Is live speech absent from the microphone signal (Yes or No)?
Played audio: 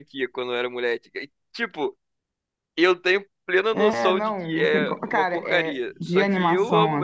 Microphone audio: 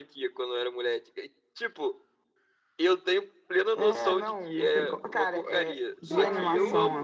No